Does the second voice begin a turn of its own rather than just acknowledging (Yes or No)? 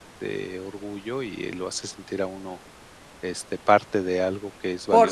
Yes